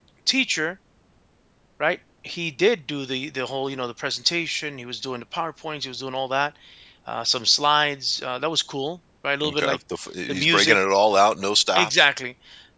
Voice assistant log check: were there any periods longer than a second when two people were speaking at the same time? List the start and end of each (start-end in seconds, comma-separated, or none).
none